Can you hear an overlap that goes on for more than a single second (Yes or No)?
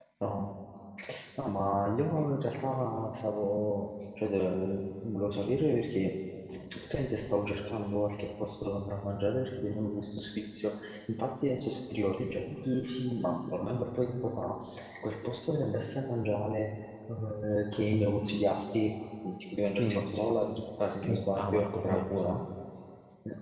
Yes